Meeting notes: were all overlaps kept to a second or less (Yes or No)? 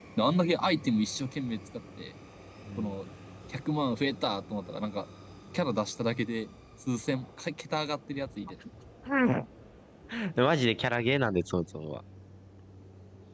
Yes